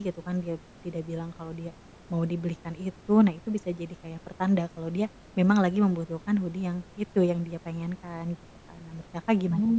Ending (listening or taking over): taking over